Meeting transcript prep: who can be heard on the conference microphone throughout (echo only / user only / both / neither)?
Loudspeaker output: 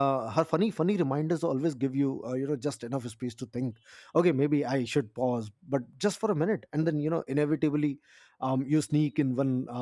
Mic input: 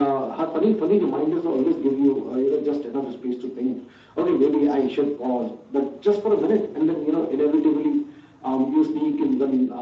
echo only